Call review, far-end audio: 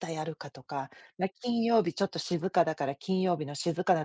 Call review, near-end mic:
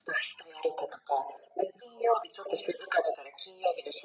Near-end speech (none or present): none